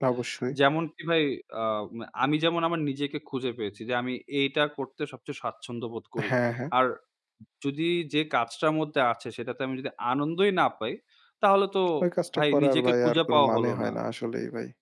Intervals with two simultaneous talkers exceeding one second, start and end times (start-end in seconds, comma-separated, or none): 12.4-13.9